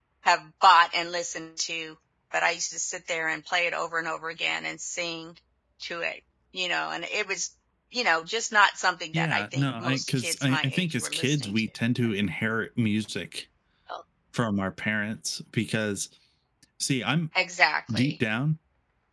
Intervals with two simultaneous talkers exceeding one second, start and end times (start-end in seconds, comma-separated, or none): 9.1-11.6